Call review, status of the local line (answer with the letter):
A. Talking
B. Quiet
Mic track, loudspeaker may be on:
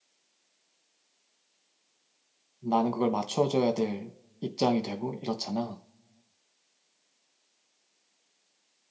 A